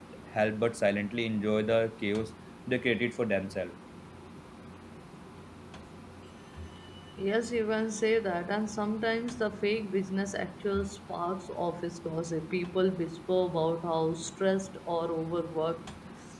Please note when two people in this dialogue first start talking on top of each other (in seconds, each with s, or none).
none